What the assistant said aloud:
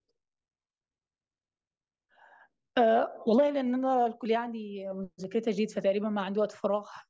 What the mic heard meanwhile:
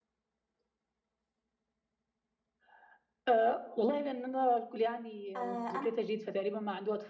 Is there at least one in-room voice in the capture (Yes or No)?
Yes